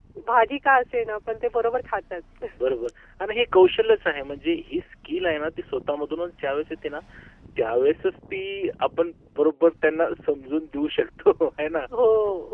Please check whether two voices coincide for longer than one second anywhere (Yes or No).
No